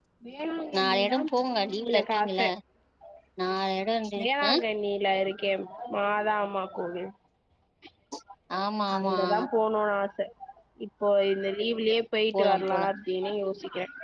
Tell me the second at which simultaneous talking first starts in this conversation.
0.8 s

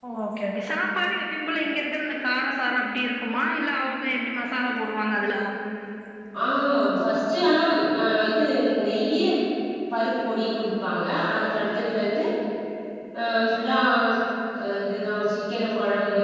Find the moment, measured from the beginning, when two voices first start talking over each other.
none

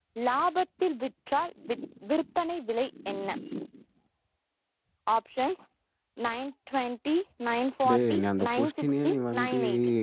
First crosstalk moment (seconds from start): 7.8 s

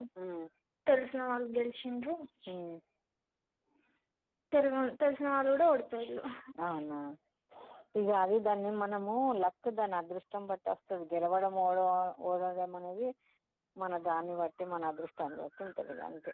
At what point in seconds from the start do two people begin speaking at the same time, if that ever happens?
none

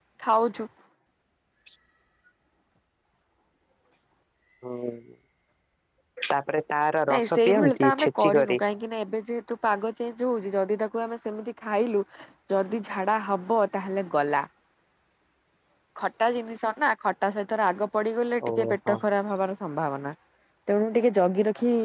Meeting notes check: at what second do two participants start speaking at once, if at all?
7.1 s

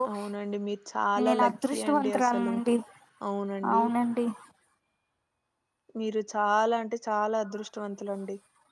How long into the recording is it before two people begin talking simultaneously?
1.3 s

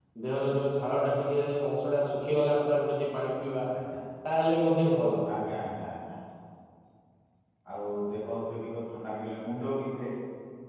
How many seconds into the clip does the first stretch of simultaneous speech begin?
none

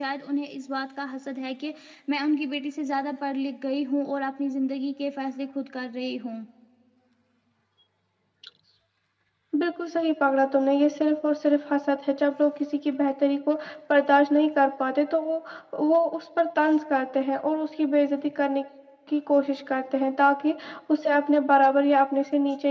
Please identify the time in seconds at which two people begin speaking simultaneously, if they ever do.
none

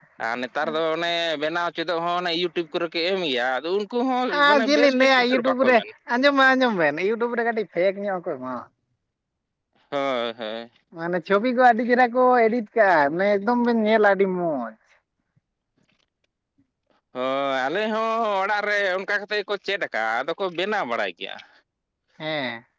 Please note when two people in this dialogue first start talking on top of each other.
4.3 s

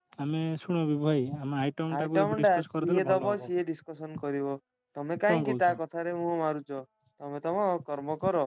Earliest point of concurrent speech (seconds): 1.9 s

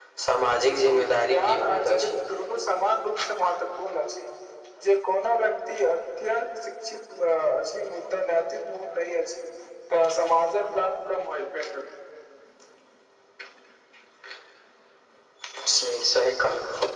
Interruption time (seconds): 0.6 s

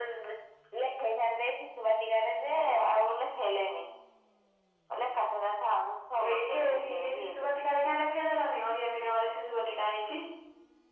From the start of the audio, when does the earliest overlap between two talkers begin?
6.2 s

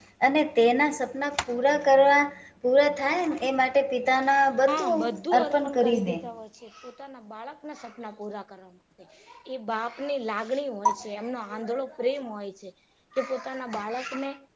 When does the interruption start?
4.7 s

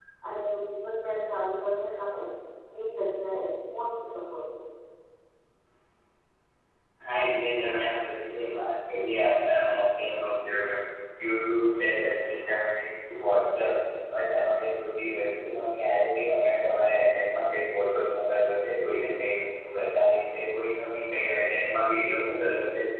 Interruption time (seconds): none

